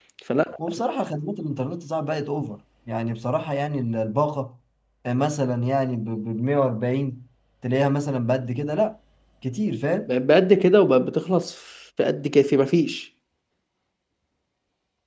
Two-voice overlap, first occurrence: none

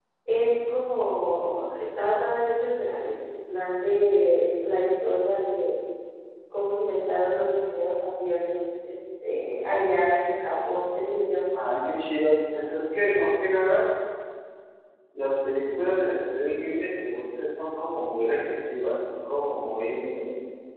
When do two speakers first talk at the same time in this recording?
none

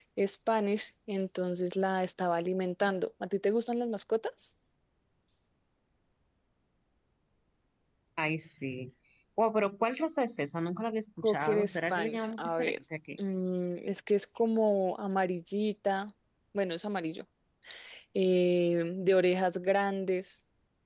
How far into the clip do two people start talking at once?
11.2 s

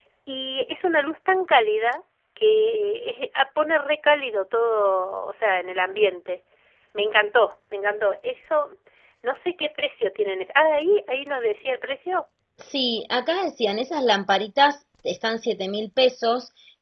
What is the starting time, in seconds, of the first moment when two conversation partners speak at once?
none

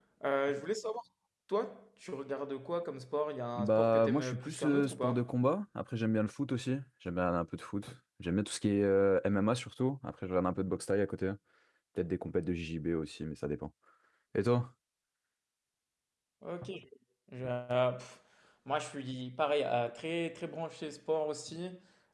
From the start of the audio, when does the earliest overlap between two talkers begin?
3.6 s

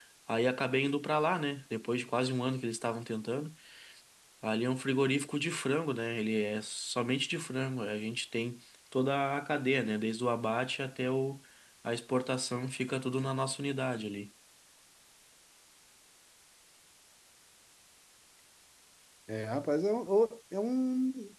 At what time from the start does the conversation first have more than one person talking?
none

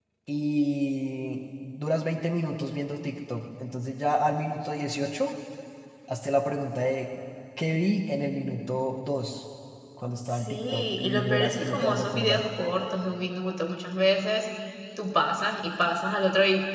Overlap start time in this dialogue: 10.3 s

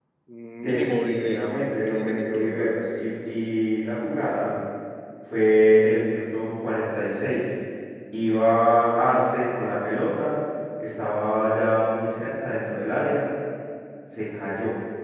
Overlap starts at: 0.6 s

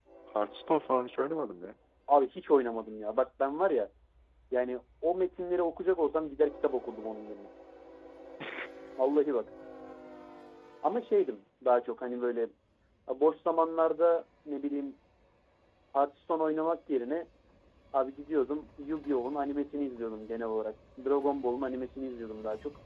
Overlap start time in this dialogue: none

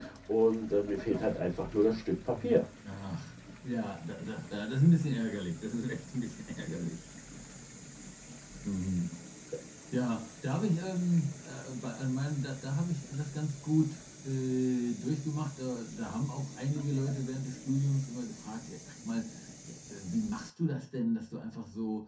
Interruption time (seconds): none

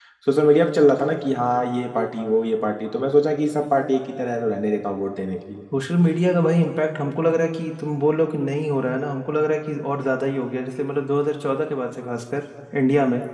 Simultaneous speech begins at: none

